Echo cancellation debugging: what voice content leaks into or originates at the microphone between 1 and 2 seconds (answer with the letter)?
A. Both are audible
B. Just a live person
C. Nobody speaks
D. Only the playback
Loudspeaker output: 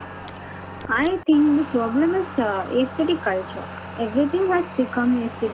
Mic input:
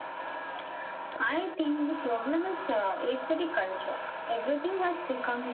D